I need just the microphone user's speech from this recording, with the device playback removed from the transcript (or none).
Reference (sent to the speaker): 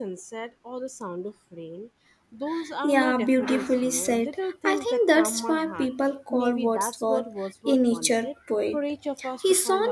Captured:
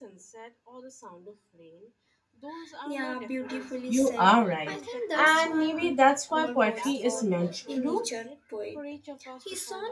You are right, and maybe that's why poetry is meant to do.